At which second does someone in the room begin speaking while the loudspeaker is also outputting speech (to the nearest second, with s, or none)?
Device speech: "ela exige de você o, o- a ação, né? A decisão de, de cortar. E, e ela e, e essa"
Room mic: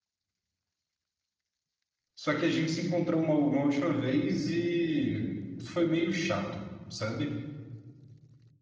2 s